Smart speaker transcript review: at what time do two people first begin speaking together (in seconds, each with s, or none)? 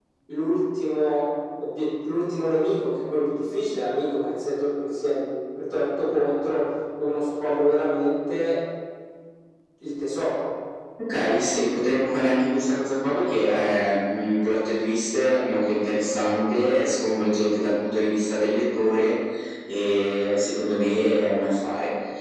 none